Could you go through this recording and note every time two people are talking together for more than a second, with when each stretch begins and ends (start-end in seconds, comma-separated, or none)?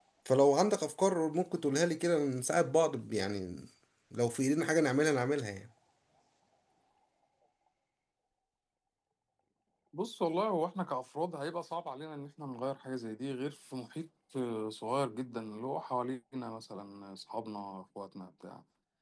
none